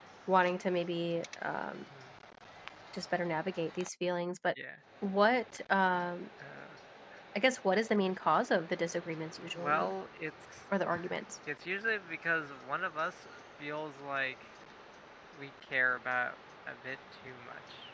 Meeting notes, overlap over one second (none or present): none